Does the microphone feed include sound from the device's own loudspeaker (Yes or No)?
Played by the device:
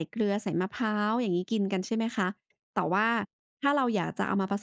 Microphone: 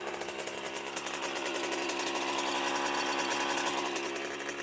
No